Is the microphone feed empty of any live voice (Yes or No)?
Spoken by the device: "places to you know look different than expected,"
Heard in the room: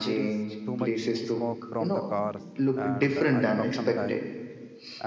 No